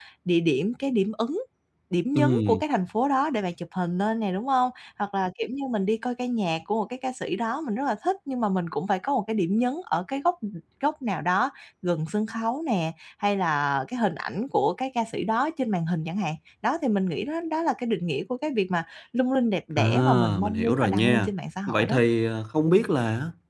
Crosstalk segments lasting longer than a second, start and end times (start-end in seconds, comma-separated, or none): 19.8-21.3